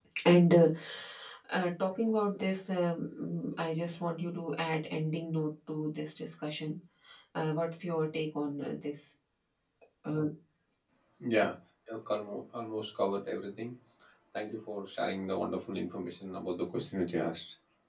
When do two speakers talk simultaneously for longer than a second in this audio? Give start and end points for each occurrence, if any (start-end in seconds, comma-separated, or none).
none